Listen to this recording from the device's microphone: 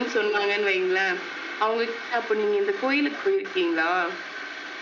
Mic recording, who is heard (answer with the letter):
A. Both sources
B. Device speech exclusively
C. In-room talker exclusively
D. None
B